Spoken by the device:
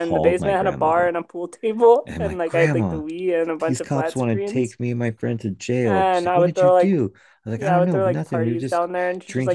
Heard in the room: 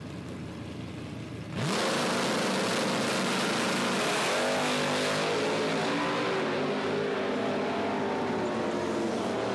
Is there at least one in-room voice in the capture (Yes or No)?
No